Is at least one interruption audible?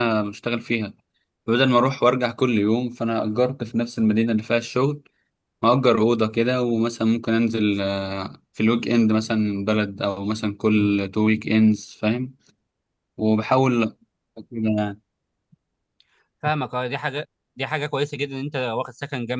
No

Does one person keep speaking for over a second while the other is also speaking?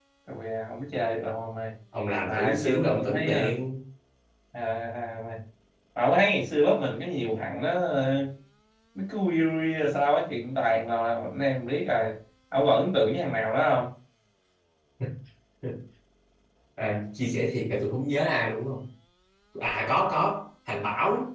Yes, from 2.2 s

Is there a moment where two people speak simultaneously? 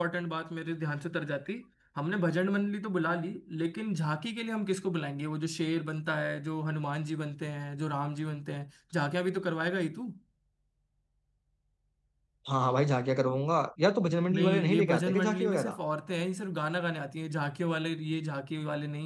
Yes, from 14.3 s

